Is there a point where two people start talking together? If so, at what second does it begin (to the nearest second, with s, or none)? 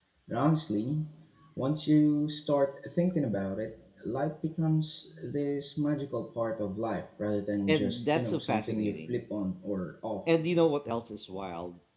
8 s